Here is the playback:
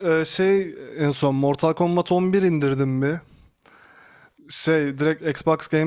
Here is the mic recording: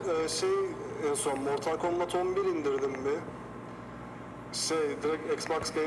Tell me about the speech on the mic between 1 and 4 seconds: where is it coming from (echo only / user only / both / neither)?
echo only